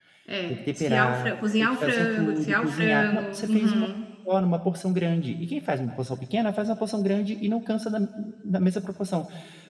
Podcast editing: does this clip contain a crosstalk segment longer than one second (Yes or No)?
Yes